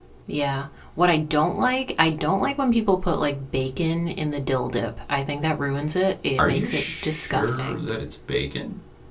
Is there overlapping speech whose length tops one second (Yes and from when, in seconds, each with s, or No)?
Yes, from 6.4 s